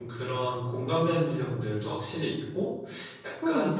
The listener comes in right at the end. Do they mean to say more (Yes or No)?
Yes